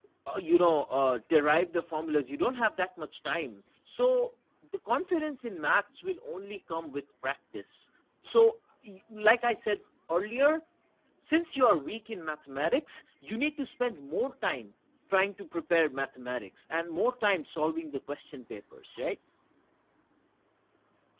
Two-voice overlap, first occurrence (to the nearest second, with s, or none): none